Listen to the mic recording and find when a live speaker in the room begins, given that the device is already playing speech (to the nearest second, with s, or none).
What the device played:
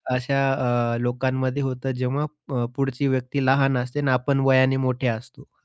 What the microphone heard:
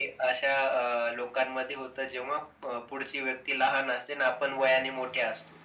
none